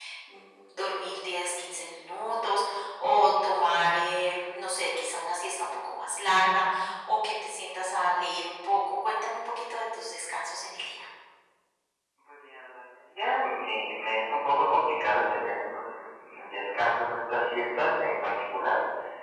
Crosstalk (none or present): none